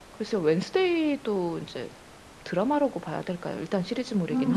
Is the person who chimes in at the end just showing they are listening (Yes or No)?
No